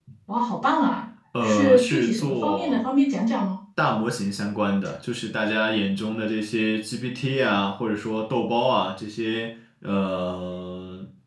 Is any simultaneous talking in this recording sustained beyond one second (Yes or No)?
Yes